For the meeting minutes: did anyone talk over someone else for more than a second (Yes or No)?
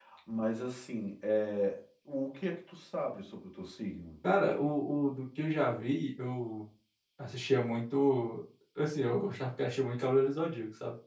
No